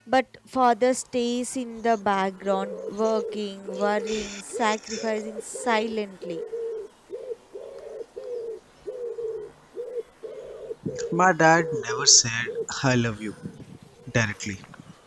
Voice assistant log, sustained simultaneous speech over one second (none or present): none